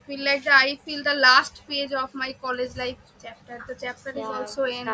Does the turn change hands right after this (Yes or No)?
Yes